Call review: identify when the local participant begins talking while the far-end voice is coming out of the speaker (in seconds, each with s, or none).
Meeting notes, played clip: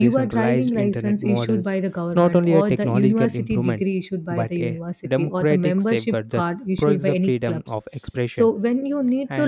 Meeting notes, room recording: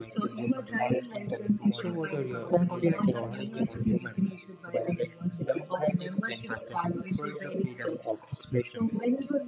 1.7 s